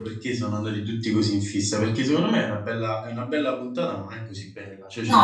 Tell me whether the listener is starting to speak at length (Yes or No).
No